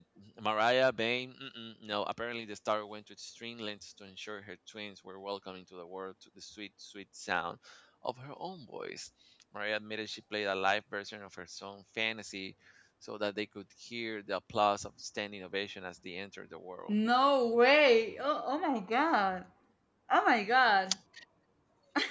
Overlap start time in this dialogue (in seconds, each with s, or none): none